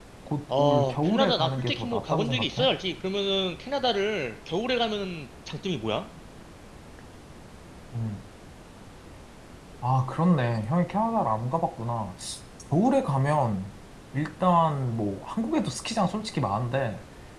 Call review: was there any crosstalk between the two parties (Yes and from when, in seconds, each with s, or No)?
Yes, from 0.6 s